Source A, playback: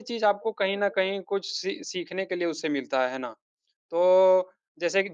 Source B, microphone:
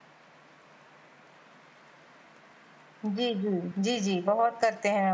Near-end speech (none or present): present